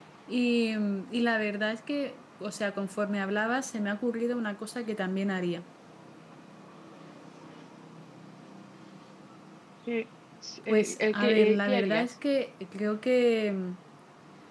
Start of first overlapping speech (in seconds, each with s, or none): 10.6 s